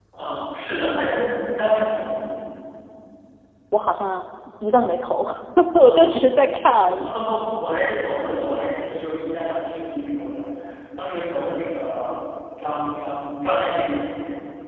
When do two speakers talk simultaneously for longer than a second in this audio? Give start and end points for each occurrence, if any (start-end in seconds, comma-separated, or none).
none